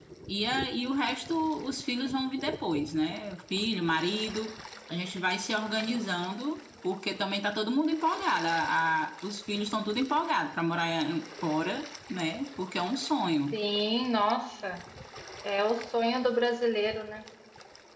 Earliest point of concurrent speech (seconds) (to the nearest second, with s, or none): none